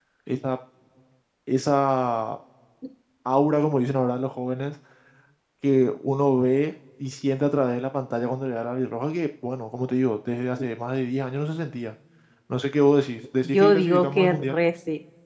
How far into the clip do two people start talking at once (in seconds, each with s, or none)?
13.4 s